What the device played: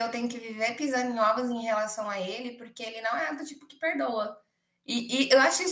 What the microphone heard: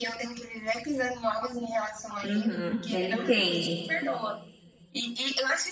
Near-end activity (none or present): present